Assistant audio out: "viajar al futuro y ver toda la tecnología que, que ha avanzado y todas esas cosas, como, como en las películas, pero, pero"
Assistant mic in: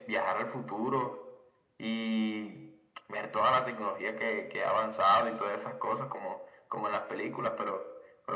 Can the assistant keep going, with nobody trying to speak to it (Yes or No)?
Yes